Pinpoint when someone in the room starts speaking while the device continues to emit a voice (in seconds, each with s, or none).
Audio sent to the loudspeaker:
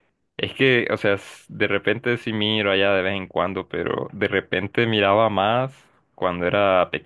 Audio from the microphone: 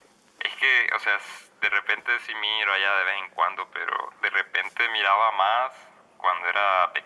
none